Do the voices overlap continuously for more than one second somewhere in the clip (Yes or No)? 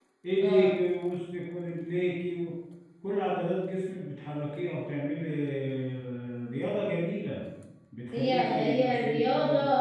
Yes